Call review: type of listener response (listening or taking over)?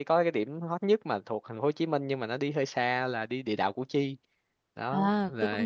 taking over